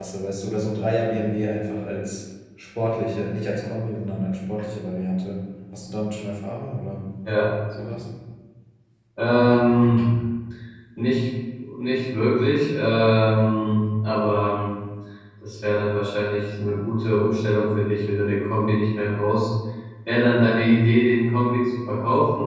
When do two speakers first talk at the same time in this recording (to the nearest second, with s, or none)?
none